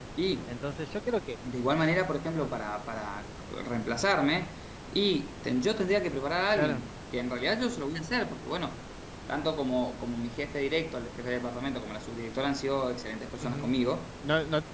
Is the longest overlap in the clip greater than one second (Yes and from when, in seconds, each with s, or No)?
No